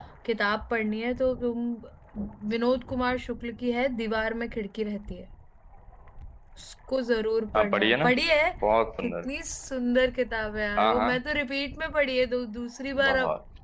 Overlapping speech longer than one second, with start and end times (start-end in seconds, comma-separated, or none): none